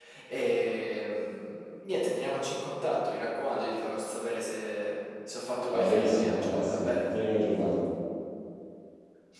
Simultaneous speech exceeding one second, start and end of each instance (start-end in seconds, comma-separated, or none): 5.7-7.0